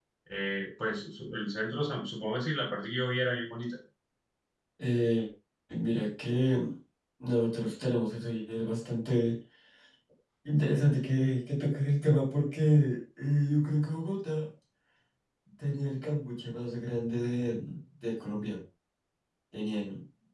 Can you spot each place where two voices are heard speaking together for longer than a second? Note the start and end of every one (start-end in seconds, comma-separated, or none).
none